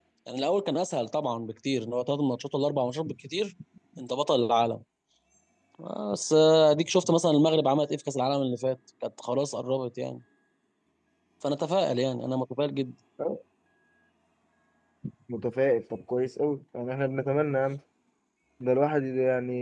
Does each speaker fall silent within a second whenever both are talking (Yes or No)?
Yes